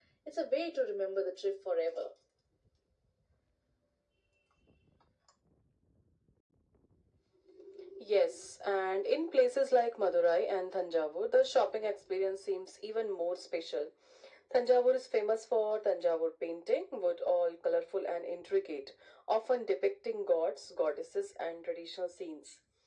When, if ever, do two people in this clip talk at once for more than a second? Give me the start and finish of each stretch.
none

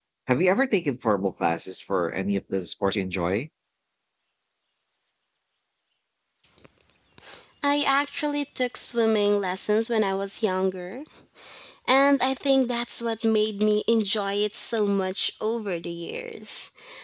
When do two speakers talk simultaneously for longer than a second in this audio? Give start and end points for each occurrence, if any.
none

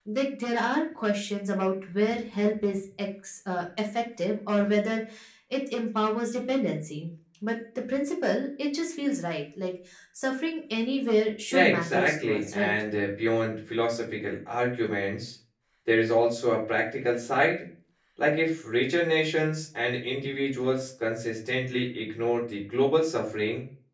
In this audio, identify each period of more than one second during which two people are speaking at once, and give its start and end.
11.5-12.7

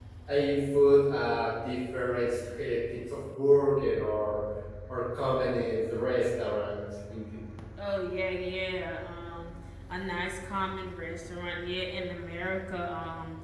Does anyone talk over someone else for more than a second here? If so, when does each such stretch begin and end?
none

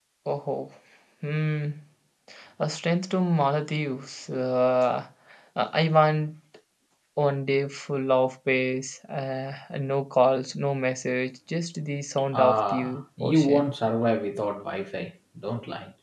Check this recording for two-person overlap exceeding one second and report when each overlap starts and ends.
12.3-13.7

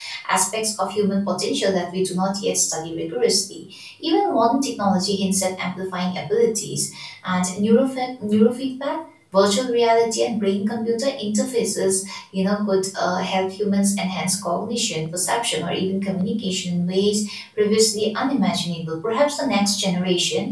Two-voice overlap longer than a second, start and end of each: none

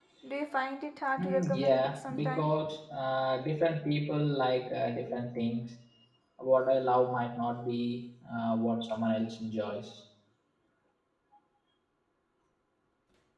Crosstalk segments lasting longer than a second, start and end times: 1.2-2.5

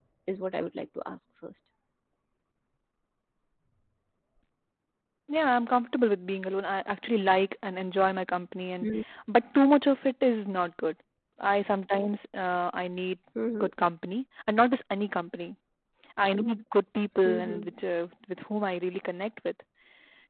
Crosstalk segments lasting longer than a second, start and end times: none

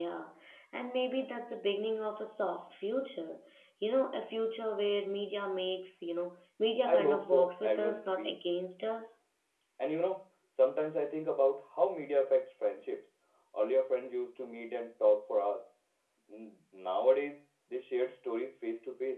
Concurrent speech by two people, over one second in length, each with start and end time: 6.9-8.4

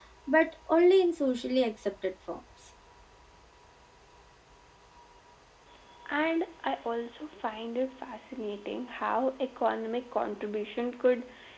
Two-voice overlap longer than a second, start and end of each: none

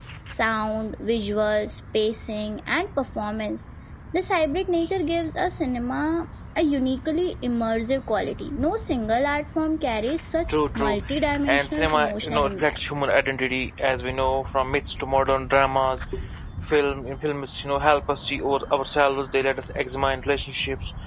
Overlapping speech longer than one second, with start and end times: 11.5-12.8

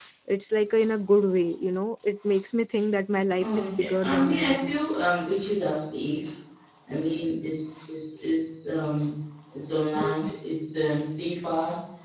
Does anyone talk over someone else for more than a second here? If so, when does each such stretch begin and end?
3.4-5.0

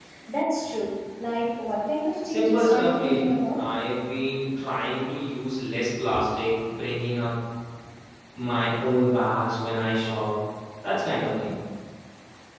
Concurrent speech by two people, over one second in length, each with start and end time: 2.3-3.6

